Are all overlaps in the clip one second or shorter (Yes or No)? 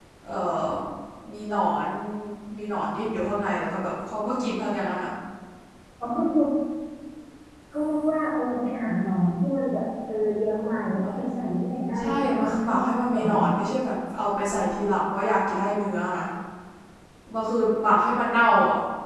No